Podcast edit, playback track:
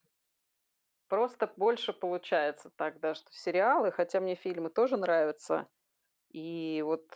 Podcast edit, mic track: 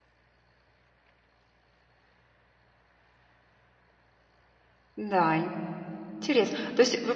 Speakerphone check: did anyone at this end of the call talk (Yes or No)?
Yes